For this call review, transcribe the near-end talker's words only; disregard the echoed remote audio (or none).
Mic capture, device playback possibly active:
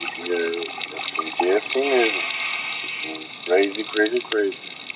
none